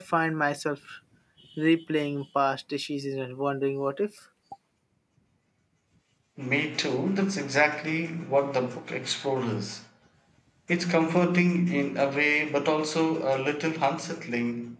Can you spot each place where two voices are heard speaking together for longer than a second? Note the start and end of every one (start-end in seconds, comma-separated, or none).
none